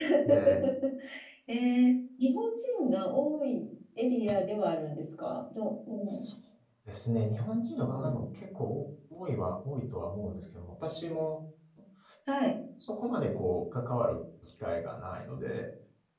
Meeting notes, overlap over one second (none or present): none